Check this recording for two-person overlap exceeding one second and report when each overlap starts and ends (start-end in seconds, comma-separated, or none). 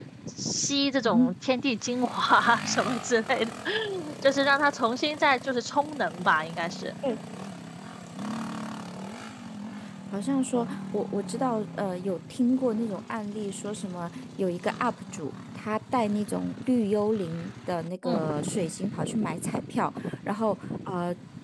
none